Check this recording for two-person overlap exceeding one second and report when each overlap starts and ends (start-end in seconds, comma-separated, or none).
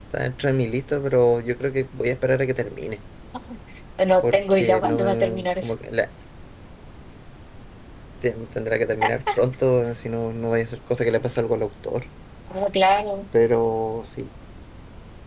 4.2-5.7